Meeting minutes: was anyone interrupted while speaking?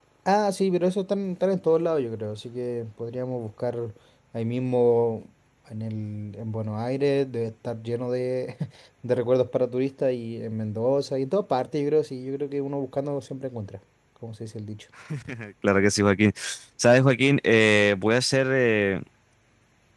No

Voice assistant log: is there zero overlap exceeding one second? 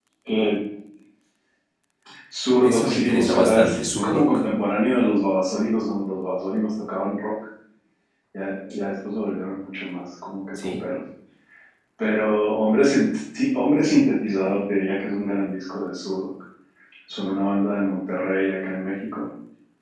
No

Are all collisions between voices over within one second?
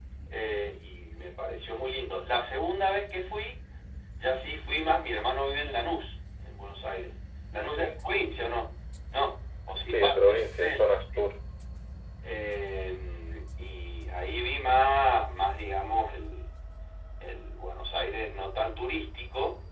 No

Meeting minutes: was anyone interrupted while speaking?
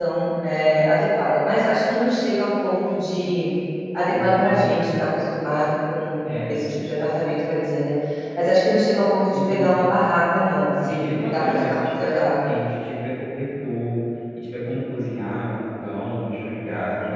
Yes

